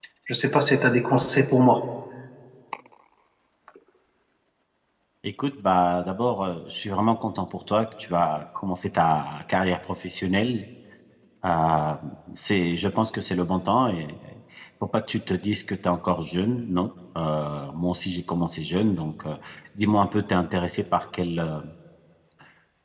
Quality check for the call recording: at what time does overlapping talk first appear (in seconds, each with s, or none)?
none